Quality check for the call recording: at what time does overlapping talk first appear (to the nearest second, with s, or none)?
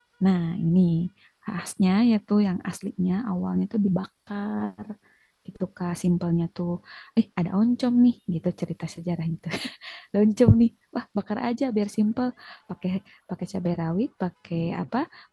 none